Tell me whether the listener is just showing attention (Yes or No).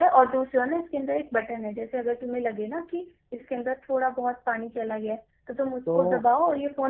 Yes